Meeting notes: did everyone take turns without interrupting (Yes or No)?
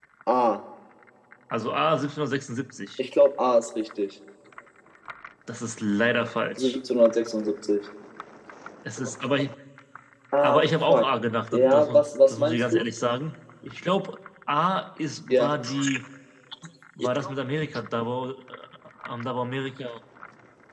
No